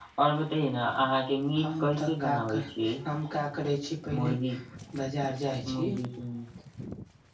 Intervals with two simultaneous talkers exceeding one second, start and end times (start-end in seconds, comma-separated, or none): 1.6-2.9